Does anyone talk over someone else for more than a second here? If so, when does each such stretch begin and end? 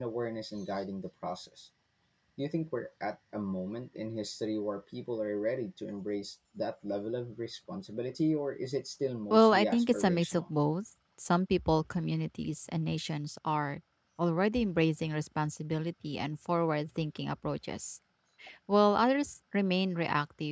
9.3-10.5

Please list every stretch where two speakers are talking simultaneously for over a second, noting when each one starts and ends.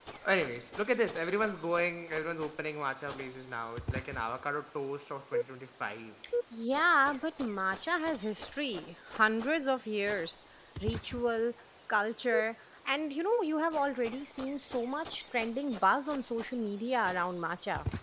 none

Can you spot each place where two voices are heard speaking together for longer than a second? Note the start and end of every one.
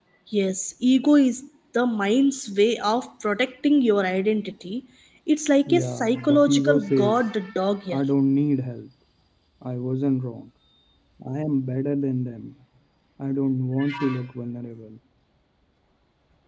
5.7-7.2

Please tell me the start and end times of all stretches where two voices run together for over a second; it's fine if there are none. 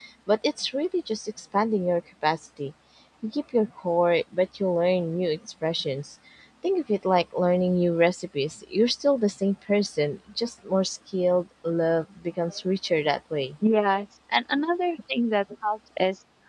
none

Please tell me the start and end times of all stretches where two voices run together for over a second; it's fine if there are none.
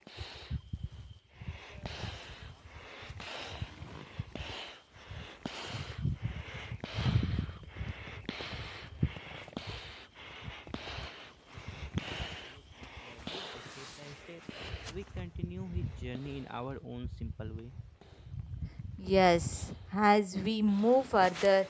none

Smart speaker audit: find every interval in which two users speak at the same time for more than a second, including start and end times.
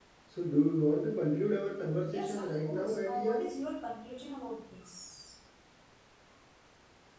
2.1-3.4

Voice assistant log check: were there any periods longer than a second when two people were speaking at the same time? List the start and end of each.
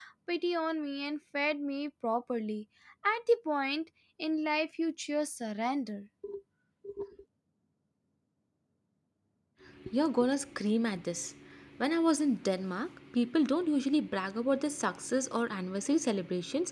none

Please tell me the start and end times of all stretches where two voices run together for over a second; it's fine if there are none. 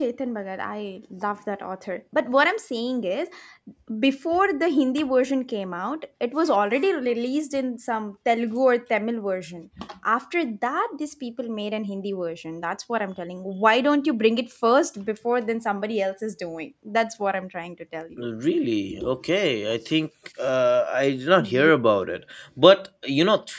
none

